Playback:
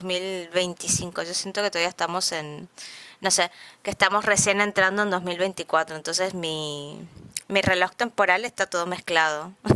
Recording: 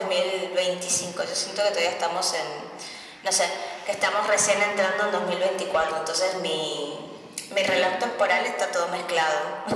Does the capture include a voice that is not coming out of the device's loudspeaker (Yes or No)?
Yes